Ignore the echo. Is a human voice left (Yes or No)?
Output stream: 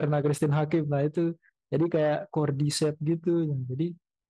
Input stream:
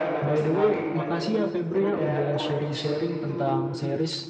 Yes